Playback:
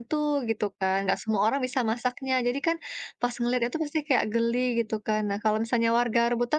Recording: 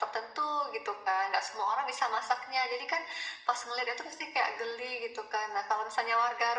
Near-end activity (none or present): none